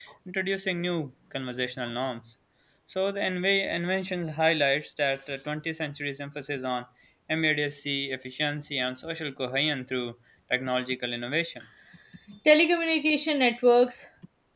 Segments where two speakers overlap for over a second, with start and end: none

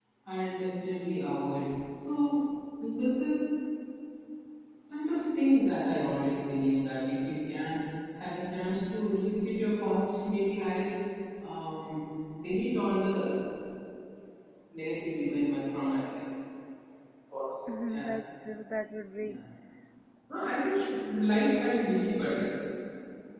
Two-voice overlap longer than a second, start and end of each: none

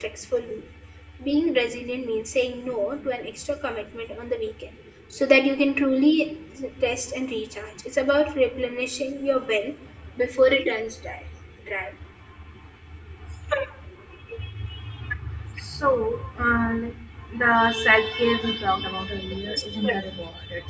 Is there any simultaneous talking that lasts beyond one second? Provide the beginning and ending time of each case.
none

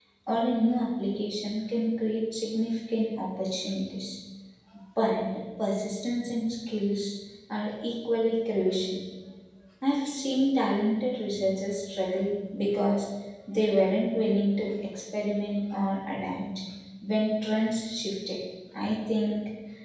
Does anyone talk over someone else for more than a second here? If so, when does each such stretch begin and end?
none

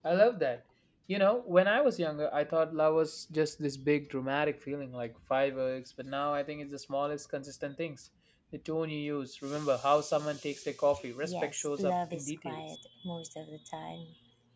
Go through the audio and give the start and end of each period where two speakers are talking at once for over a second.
11.2-12.6

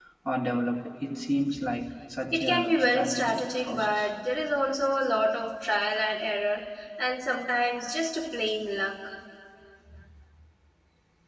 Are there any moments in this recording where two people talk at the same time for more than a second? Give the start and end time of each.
2.3-4.1

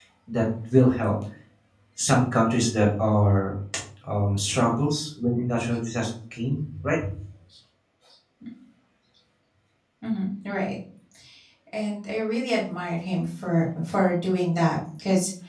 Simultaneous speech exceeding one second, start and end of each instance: none

